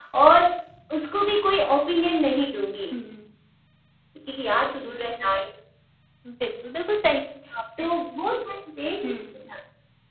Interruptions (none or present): none